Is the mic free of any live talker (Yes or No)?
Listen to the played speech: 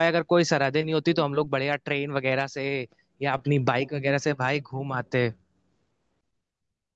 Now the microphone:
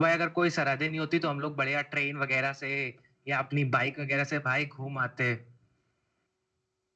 Yes